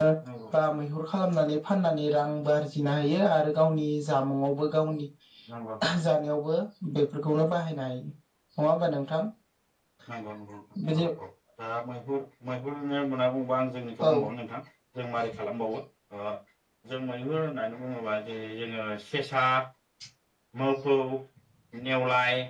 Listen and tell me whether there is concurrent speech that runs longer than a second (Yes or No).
No